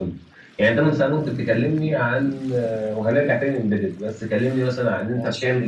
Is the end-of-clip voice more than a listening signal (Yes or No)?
No